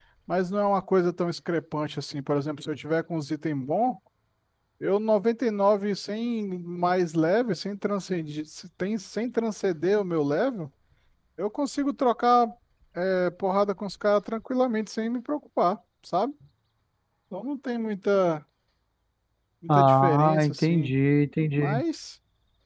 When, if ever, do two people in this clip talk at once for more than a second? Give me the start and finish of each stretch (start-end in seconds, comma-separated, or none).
19.7-20.9